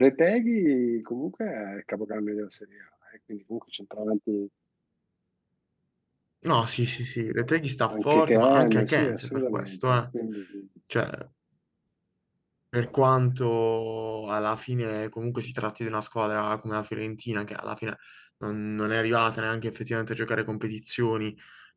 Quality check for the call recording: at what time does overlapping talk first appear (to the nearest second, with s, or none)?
8 s